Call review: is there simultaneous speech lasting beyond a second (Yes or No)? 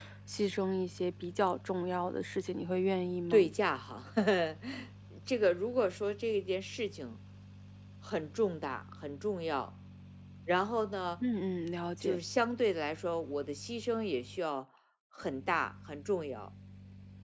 No